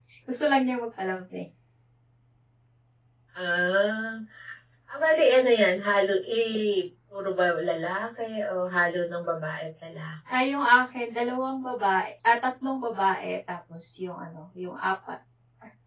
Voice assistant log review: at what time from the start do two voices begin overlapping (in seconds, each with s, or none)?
none